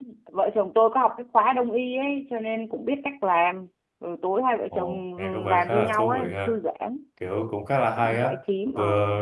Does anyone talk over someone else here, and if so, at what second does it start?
4.7 s

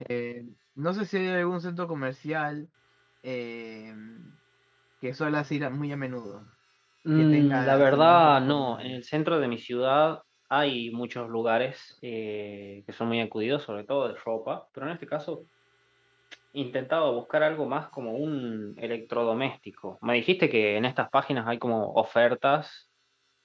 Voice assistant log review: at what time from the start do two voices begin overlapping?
7.1 s

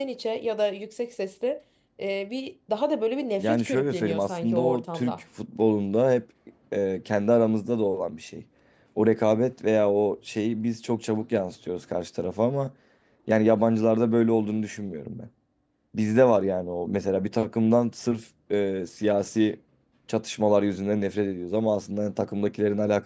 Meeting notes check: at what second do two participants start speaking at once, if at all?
3.4 s

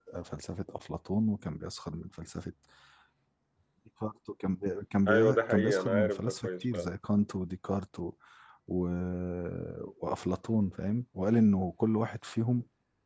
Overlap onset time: 5.1 s

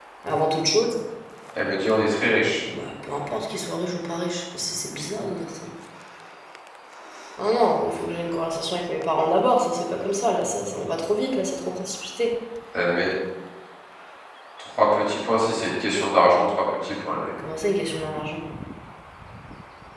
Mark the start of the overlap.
none

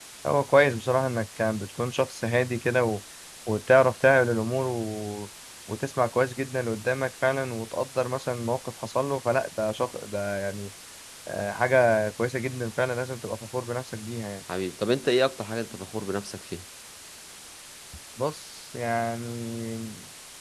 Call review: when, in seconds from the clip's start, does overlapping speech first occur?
none

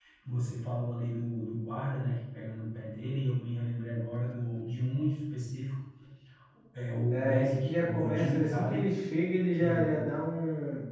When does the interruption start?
7.1 s

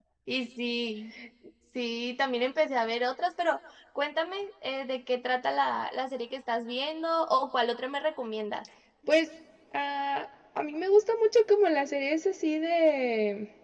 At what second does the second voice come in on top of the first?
none

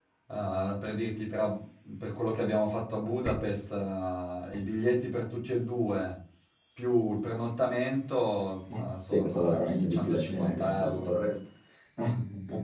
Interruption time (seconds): 9.1 s

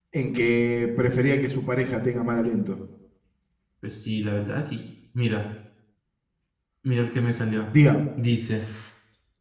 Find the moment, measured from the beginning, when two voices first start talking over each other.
none

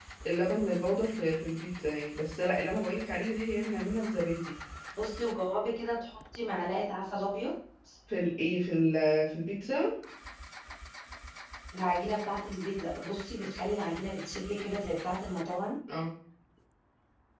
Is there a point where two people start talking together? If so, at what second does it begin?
none

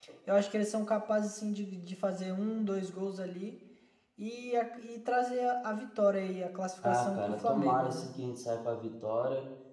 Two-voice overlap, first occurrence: 6.8 s

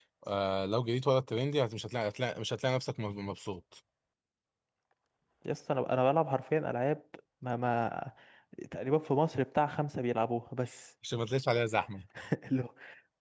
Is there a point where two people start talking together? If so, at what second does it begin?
none

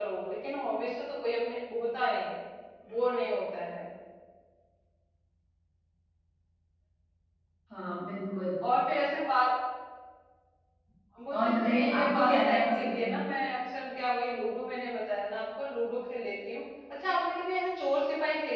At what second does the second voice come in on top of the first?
11.3 s

